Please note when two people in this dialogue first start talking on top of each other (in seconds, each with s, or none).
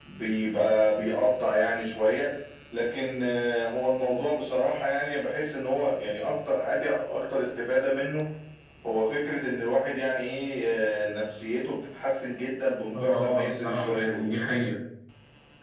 12.9 s